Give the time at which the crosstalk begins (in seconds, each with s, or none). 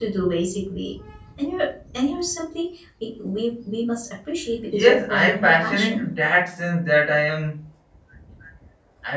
4.7 s